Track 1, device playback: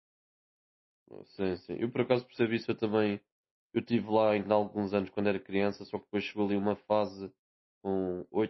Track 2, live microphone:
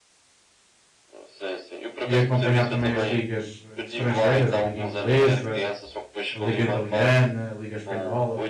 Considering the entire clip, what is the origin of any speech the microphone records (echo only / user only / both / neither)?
both